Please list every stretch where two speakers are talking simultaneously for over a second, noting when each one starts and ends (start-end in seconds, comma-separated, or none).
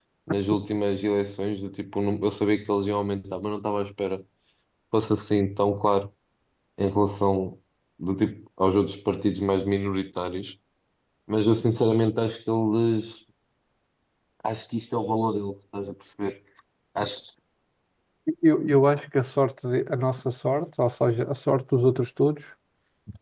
none